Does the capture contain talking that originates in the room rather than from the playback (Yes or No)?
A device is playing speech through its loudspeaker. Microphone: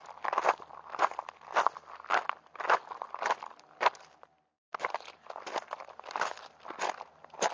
No